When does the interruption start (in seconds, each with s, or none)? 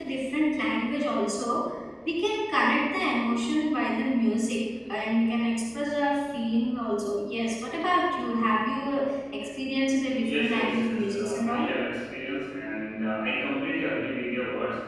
10.2 s